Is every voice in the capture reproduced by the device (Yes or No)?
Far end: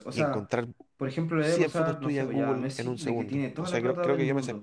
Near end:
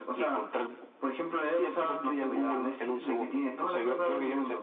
Yes